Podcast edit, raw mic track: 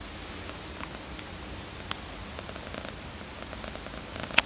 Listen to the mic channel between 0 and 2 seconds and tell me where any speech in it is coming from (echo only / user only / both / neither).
neither